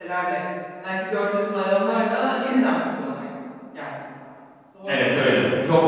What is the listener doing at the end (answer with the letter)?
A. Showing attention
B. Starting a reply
B